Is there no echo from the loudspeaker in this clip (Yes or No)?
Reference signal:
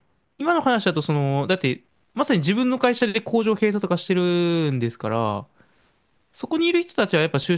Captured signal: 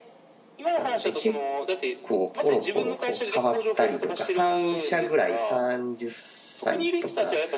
No